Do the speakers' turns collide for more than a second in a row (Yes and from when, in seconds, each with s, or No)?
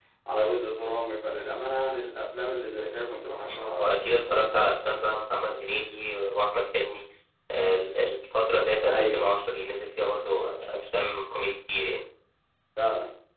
Yes, from 3.5 s